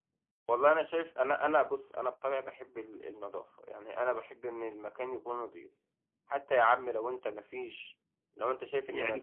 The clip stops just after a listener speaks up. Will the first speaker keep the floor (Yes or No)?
No